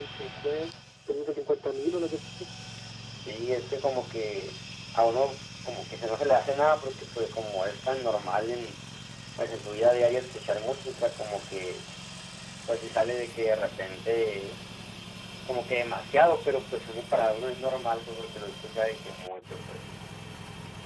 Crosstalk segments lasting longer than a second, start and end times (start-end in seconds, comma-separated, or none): none